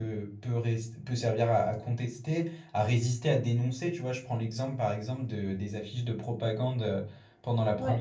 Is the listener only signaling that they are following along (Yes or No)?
Yes